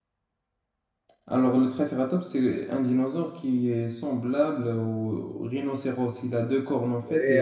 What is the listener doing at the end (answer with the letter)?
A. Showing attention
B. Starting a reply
B